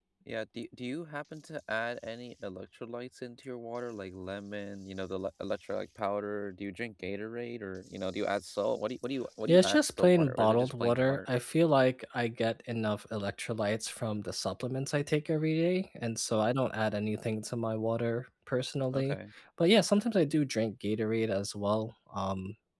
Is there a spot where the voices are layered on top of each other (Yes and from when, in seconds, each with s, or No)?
Yes, from 9.5 s